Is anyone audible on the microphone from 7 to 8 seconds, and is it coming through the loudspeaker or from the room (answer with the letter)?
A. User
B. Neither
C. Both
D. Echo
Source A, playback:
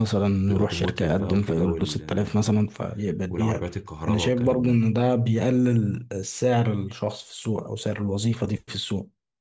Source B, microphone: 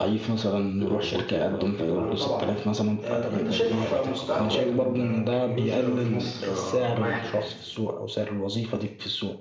C